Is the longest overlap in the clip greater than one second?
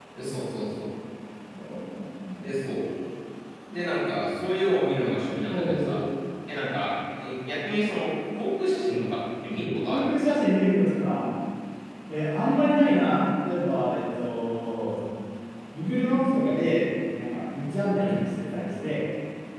No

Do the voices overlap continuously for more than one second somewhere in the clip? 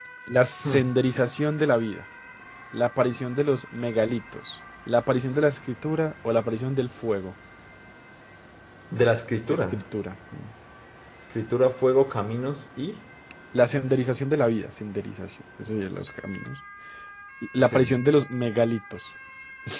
No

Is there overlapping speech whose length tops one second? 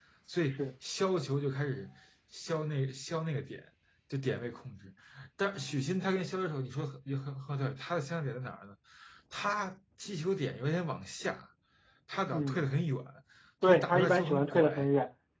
Yes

